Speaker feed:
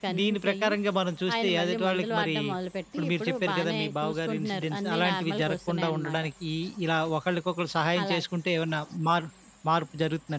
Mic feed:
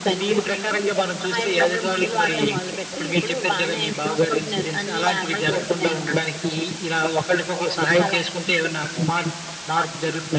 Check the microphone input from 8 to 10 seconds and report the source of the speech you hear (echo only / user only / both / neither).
echo only